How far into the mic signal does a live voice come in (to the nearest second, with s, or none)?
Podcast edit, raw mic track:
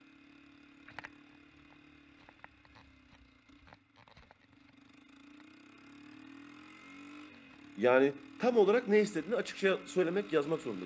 8 s